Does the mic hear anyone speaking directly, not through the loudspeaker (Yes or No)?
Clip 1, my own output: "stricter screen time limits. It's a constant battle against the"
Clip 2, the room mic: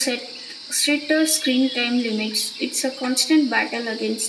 No